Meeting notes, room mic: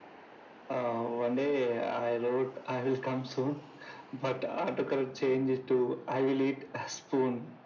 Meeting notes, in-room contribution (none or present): none